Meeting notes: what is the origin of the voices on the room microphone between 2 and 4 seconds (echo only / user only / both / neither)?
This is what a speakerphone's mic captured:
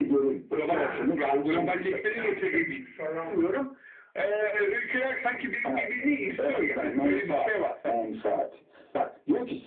both